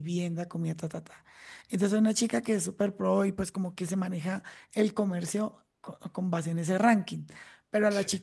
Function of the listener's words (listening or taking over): listening